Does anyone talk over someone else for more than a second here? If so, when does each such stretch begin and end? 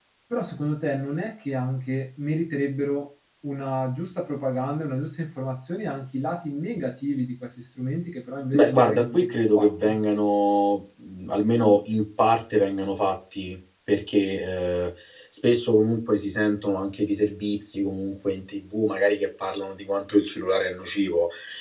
8.5-9.9

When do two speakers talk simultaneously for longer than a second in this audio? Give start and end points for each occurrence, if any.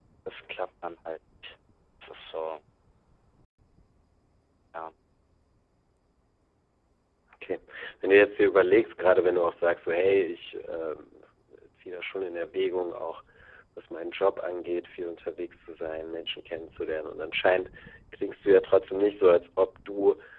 none

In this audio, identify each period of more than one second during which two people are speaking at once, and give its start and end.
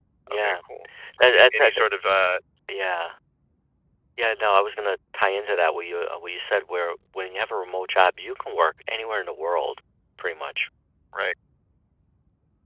none

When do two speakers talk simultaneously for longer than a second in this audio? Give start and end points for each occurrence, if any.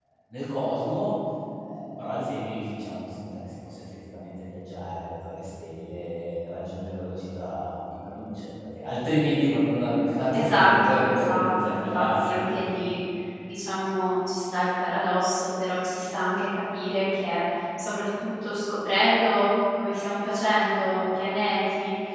10.3-12.5

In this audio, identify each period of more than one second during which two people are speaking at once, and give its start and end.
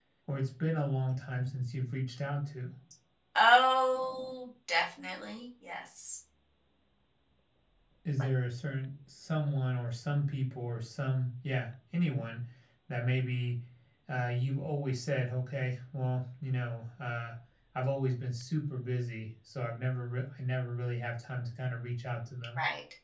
none

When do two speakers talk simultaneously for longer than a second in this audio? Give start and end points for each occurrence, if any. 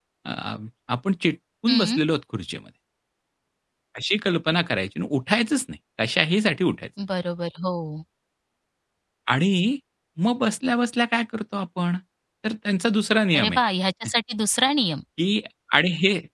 none

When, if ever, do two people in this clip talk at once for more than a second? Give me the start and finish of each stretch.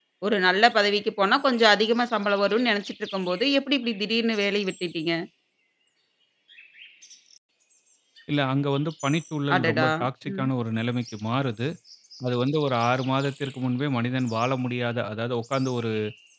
none

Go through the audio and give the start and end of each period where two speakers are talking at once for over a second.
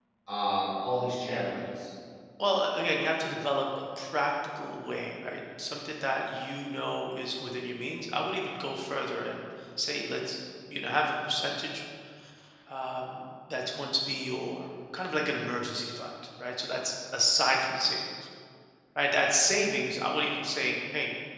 none

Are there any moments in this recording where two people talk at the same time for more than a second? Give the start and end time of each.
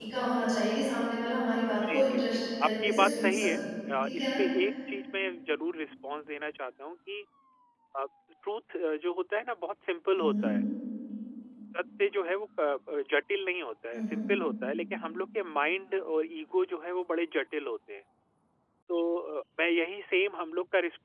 1.9-3.5

